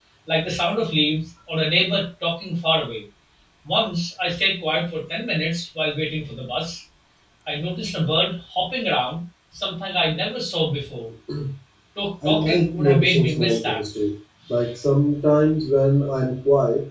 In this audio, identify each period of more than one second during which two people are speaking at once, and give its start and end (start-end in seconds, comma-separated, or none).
12.2-13.8